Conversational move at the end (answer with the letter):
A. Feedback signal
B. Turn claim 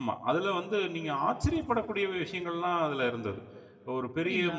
A